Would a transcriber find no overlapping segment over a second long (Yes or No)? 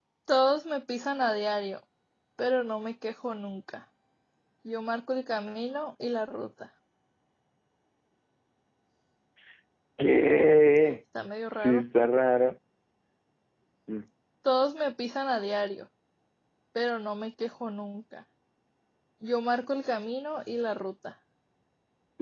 Yes